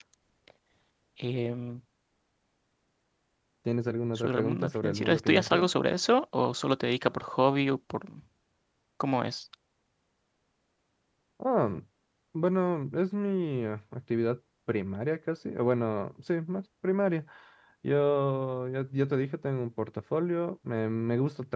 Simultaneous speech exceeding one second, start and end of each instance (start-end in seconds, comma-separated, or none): 4.2-5.7